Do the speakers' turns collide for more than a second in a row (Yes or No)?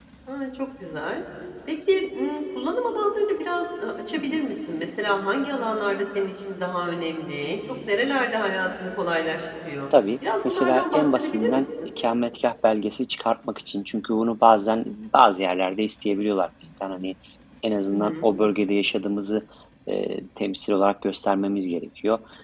Yes